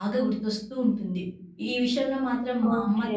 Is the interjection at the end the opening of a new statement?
No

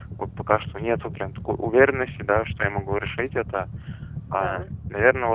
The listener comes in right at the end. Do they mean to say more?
No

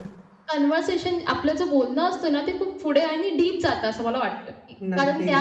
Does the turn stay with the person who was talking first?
Yes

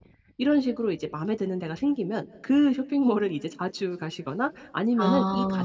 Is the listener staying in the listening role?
Yes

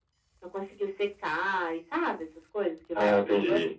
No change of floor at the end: No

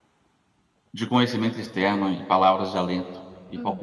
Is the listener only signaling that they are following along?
Yes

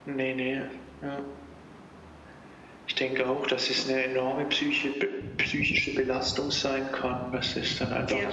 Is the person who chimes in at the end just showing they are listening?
Yes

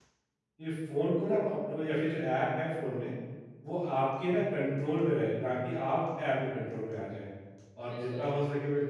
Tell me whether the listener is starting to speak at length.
No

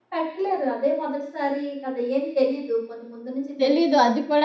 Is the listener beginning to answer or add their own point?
Yes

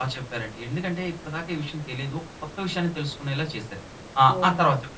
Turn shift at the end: Yes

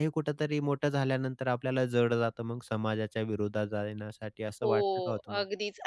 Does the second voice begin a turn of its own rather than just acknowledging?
Yes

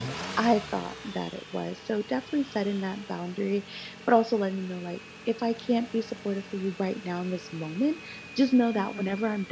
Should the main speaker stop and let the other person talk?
No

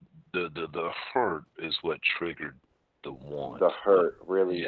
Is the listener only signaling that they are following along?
No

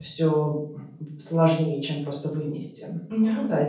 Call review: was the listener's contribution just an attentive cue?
Yes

